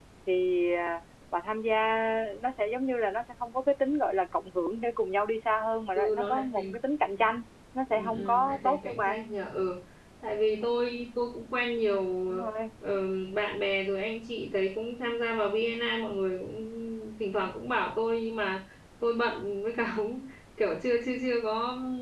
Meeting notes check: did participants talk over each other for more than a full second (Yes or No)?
Yes